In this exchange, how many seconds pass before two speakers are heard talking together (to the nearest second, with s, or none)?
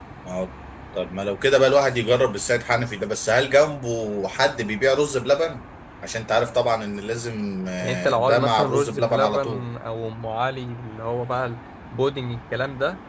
8 s